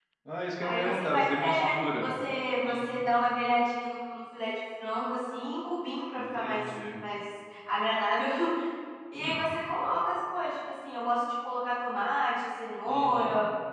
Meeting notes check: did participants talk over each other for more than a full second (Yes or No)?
Yes